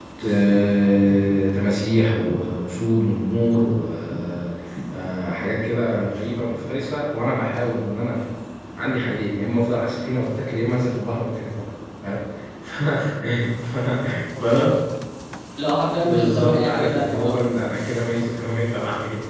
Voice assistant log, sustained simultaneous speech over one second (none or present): present